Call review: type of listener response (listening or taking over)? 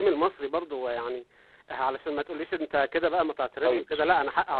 taking over